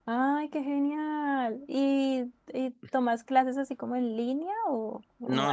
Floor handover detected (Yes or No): Yes